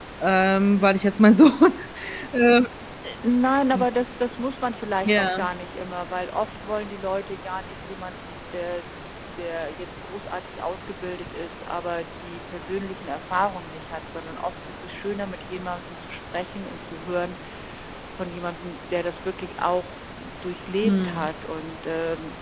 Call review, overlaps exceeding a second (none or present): none